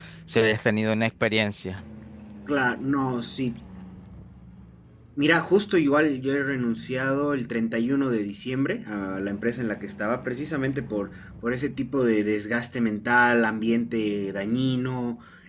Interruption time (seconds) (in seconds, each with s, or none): none